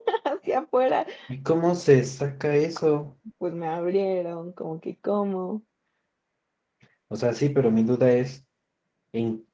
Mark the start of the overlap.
none

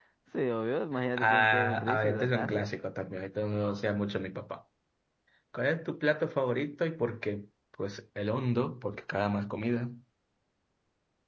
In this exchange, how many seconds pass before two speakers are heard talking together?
1.2 s

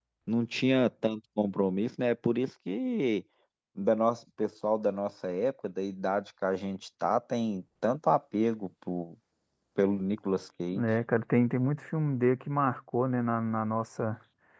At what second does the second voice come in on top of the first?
none

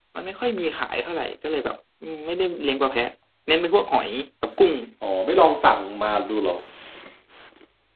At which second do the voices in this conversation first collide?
none

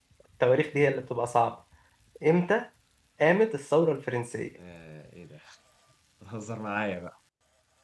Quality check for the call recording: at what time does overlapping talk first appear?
none

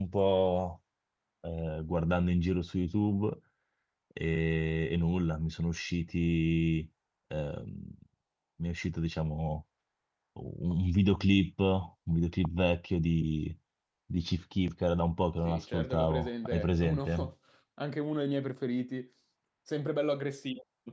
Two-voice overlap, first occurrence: 15.4 s

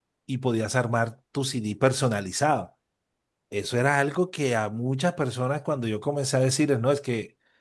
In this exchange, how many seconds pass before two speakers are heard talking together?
none

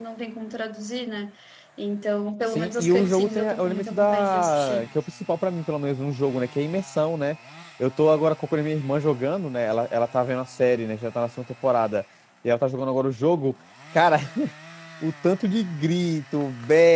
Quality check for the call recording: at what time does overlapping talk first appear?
2.5 s

